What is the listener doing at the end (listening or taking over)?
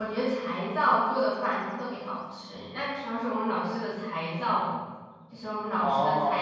listening